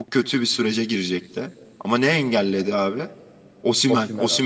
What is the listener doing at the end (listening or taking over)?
listening